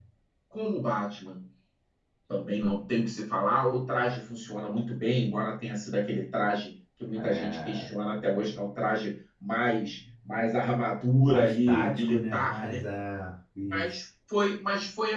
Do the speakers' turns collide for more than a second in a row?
Yes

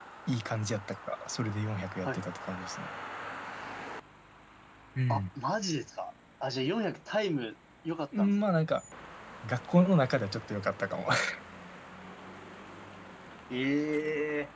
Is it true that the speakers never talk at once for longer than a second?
Yes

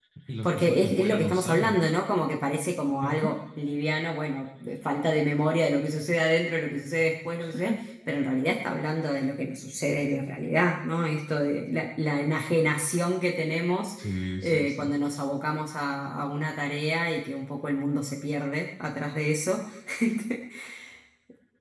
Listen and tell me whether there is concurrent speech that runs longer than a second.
Yes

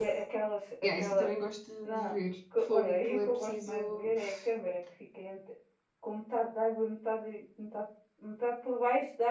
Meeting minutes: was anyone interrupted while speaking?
Yes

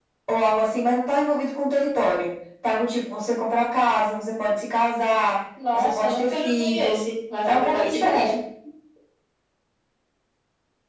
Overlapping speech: Yes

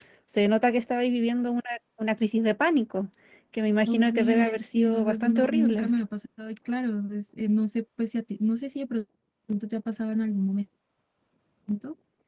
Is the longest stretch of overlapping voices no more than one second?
No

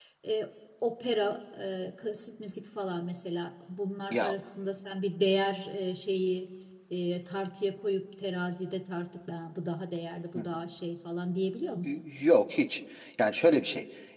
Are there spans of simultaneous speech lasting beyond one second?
No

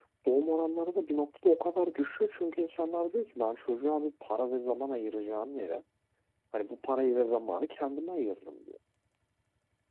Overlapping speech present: No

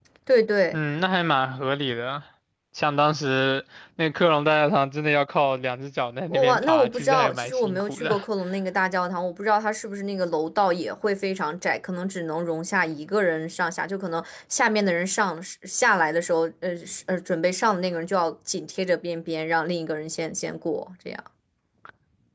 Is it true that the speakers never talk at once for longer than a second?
No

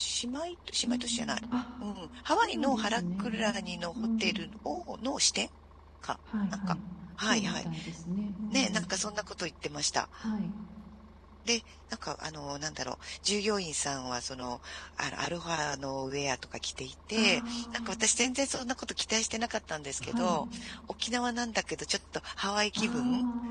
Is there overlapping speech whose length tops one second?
Yes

